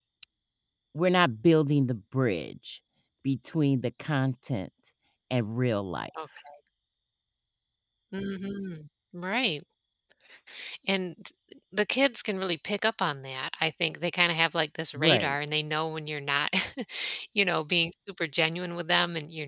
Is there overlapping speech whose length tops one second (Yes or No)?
No